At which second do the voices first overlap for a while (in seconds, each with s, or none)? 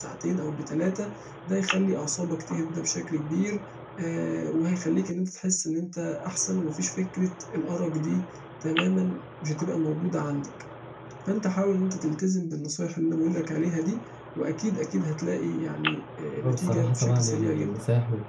16.4 s